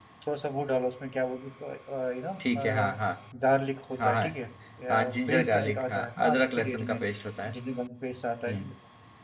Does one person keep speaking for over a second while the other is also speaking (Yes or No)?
Yes